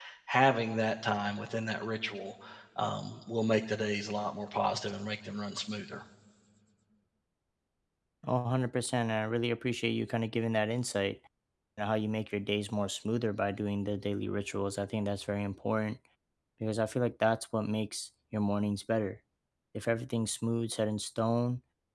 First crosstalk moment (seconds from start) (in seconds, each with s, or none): none